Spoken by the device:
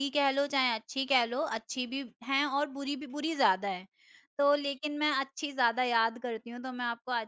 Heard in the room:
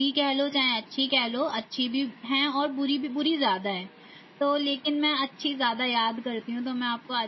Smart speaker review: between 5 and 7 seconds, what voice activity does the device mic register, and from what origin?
echo only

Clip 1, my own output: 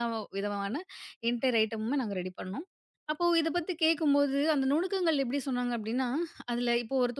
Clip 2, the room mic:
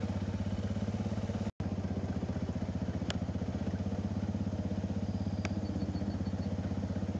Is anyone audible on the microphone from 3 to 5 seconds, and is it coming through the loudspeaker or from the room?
neither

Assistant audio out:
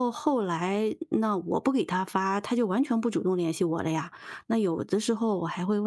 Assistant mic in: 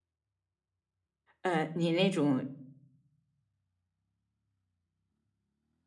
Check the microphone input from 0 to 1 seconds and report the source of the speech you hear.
neither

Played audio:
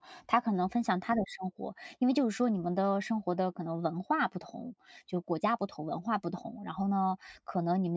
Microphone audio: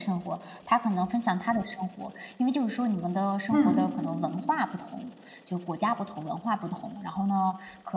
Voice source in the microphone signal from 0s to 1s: echo only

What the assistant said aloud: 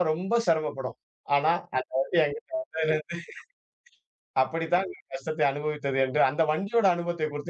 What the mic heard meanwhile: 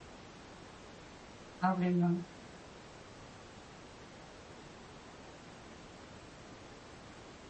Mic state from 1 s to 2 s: user only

